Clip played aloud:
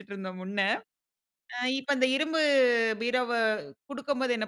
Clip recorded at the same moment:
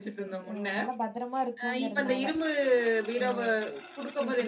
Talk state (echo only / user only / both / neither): both